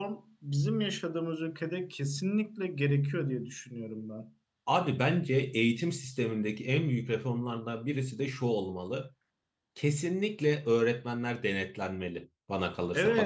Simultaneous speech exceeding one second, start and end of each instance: none

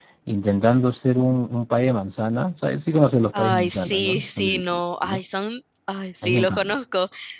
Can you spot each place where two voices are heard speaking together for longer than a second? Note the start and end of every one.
3.3-5.2

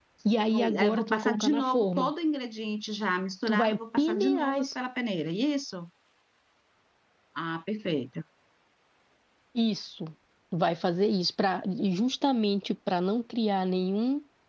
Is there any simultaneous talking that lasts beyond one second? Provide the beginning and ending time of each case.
0.5-2.1, 3.5-4.7

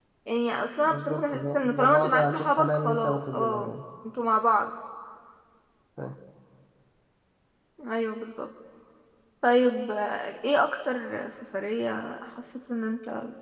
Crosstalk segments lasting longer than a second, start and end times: 0.8-3.7

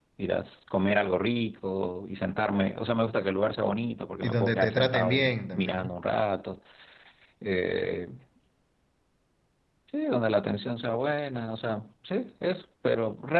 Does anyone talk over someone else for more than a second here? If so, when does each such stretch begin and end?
4.2-6.0

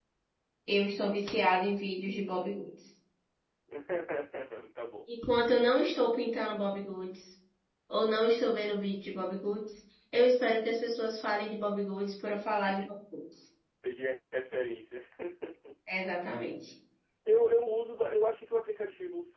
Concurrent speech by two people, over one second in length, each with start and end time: none

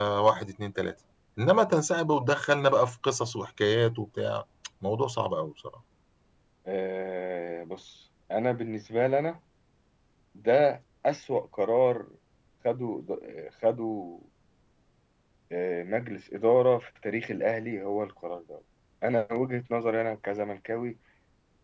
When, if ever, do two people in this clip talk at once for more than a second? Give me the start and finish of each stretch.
none

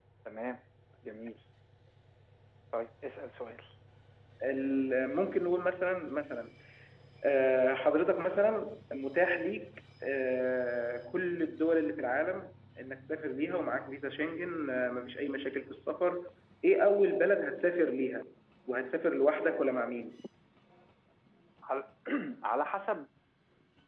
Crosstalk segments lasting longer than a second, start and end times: none

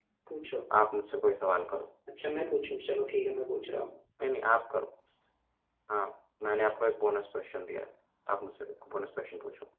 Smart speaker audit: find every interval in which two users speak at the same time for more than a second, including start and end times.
none

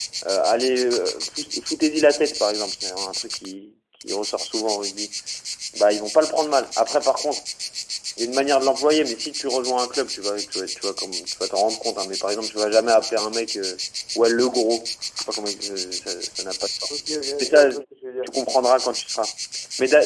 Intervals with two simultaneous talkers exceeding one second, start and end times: none

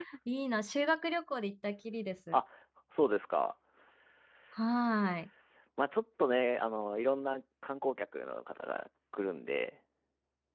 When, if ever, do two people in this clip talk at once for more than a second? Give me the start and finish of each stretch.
none

